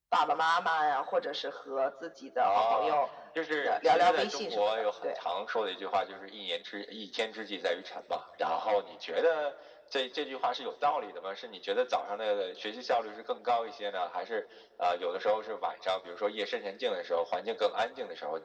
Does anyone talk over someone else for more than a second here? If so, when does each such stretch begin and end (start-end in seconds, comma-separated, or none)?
3.6-5.2